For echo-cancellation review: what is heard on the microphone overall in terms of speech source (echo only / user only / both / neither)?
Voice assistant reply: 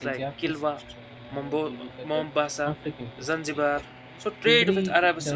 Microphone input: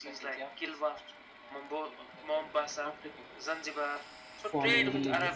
both